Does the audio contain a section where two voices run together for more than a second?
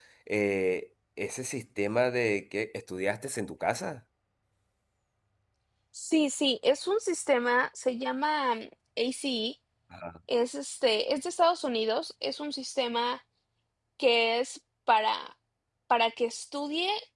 No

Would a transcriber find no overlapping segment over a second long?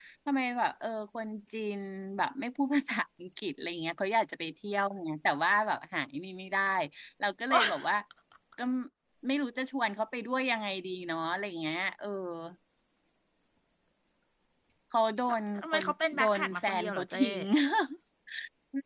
No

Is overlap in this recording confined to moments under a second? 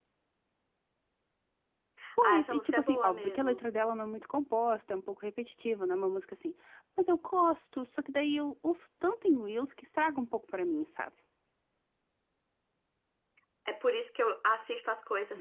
No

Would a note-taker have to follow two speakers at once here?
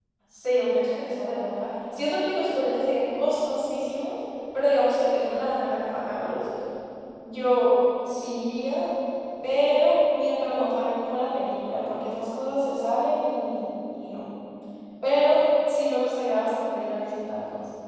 No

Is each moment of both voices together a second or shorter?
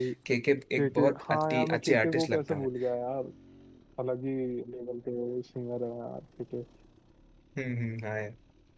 No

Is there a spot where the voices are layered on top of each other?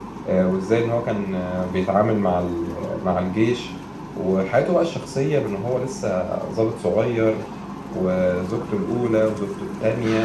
No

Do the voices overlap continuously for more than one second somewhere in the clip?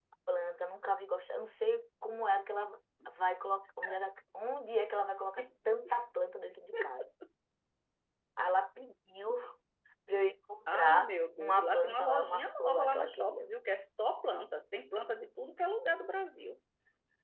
Yes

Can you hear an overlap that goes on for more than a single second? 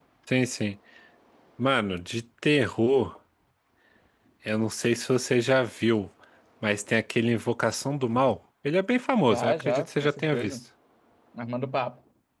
Yes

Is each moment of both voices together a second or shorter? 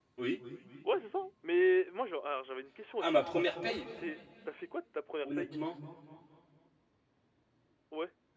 Yes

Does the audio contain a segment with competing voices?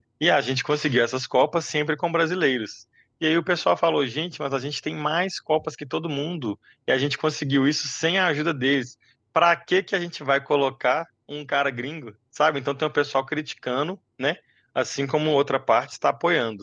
No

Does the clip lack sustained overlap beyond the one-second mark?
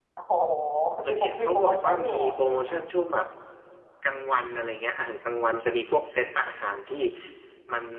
No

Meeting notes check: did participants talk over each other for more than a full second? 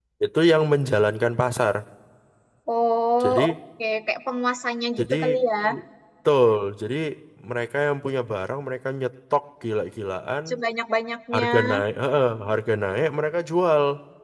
No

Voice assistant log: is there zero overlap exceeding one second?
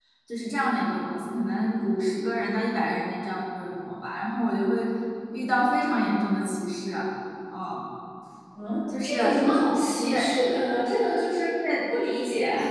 Yes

